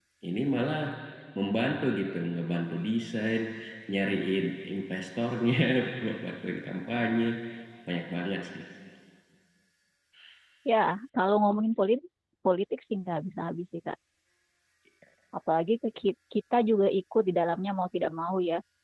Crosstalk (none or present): none